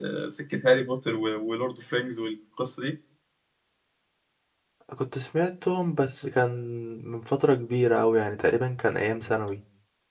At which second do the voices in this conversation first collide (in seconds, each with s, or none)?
none